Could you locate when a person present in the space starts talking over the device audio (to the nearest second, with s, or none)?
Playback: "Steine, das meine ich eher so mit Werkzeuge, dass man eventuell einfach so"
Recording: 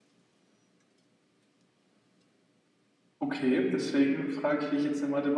3 s